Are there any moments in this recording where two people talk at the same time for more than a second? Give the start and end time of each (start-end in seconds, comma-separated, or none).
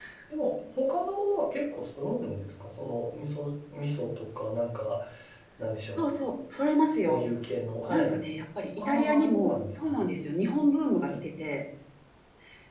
8.8-10.0